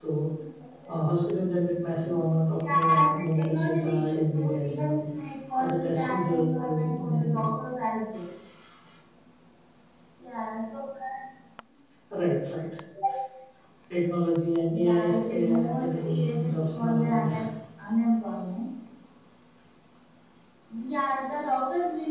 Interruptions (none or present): present